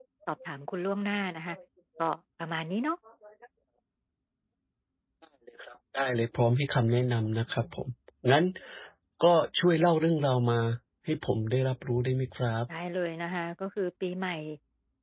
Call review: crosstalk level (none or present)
none